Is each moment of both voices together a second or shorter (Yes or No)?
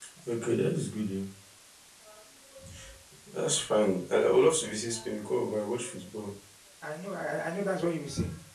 Yes